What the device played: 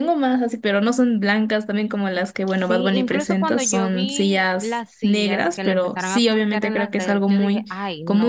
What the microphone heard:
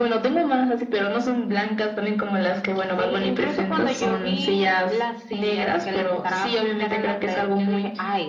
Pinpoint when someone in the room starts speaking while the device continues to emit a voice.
none

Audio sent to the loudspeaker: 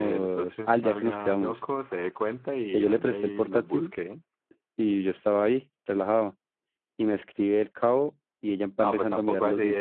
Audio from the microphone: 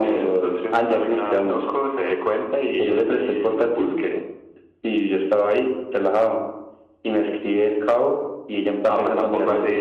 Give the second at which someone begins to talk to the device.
none

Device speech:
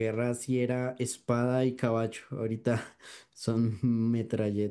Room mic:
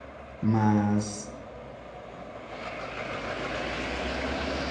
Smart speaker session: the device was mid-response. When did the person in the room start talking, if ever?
0.4 s

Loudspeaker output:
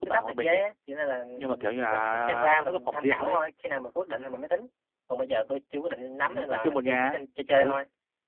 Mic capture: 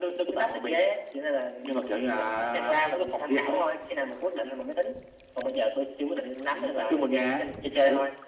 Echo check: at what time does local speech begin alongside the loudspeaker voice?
none

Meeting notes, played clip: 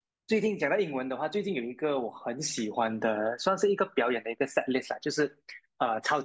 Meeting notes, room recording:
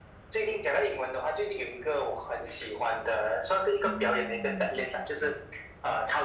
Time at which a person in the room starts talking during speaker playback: 3.8 s

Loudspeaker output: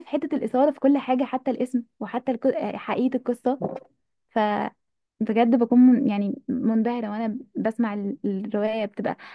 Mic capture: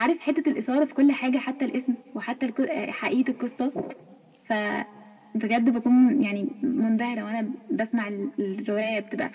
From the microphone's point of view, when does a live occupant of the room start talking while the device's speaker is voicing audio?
none

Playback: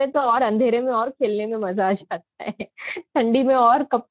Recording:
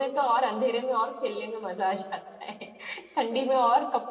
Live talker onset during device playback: none

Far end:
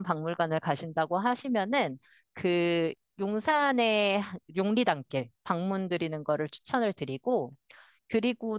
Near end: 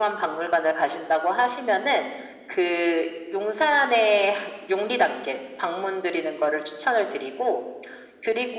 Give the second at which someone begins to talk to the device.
none

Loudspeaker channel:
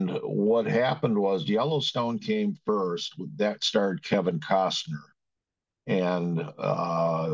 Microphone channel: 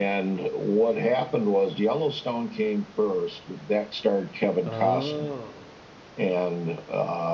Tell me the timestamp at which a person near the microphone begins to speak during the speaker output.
4.6 s

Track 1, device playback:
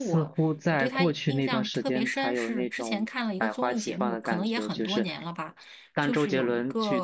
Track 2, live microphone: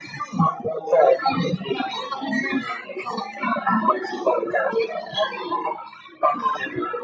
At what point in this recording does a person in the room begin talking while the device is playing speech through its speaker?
none

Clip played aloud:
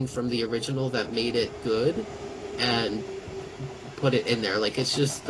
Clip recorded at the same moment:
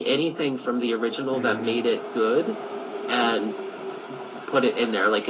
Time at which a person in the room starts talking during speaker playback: 1.3 s

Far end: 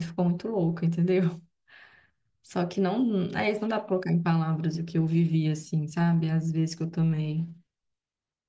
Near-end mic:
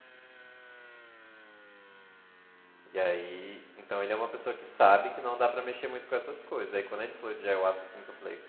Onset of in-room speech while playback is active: 2.9 s

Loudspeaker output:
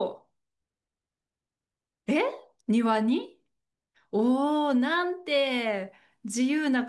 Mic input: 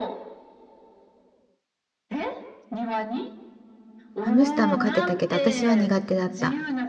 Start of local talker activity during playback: 4.2 s

